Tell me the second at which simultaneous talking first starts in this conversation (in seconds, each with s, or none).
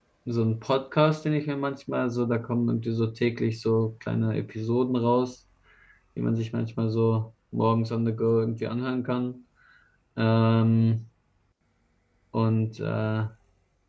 none